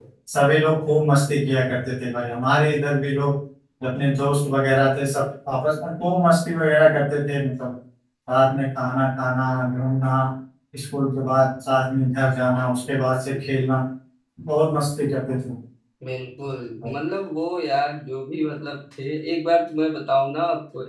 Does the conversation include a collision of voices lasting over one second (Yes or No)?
No